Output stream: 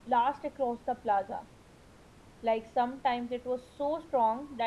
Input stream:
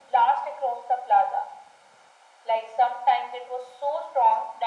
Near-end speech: none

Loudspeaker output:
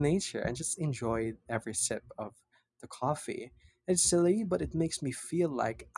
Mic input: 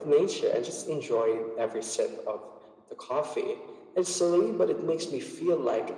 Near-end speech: none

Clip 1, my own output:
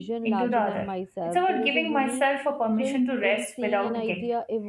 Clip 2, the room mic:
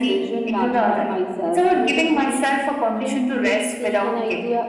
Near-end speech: none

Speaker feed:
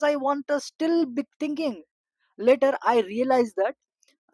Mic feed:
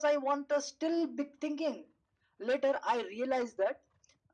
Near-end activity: none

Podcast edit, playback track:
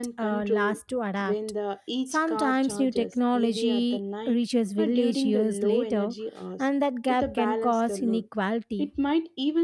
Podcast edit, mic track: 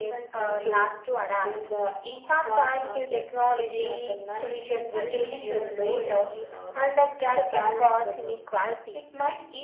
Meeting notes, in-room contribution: none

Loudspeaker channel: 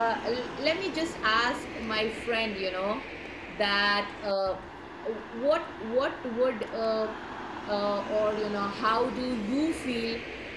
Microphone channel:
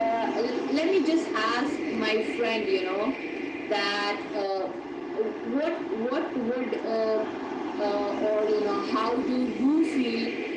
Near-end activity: none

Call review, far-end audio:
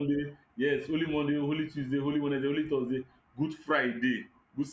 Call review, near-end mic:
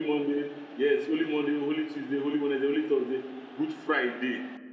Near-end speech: none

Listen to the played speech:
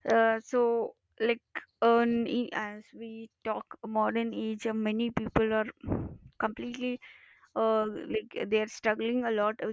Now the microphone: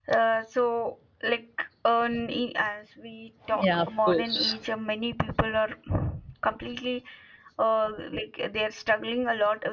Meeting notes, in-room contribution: present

